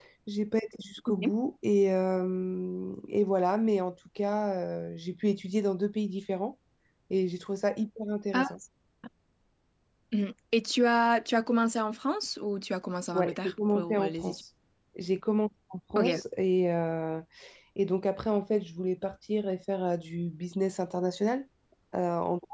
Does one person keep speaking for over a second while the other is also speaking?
Yes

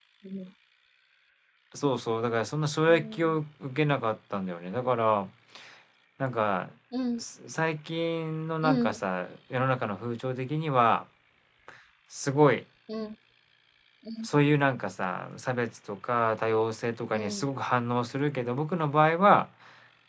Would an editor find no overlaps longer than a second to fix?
Yes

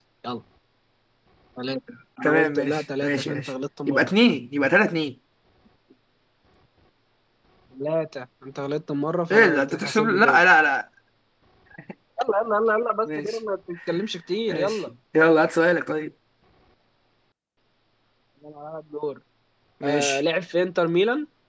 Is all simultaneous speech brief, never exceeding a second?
No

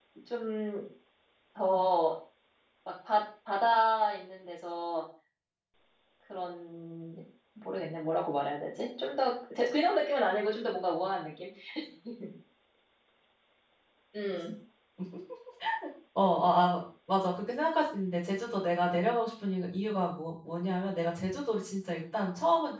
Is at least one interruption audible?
No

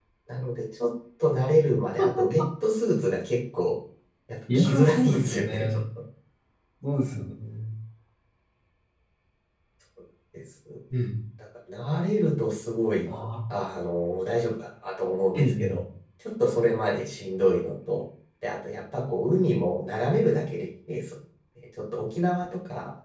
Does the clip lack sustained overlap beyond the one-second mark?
No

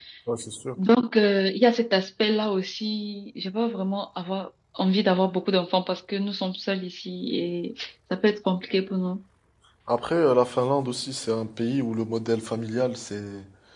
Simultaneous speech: No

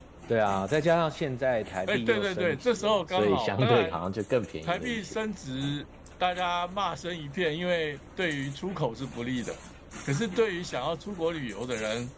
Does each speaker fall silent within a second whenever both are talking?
No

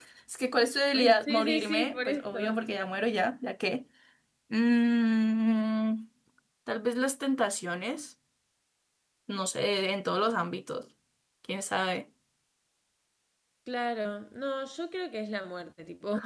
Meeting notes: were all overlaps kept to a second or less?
No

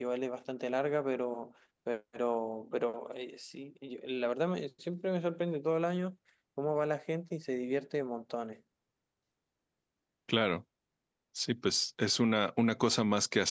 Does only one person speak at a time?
Yes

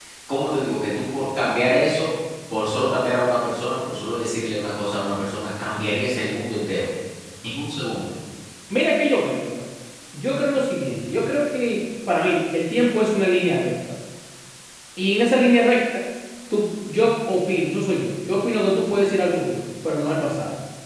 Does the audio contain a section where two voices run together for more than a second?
No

